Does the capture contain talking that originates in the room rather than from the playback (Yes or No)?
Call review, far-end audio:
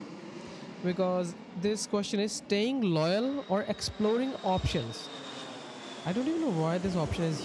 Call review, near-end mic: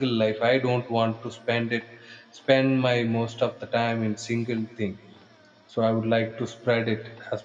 Yes